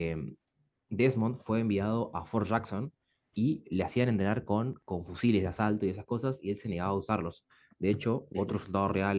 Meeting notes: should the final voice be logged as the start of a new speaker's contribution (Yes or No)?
No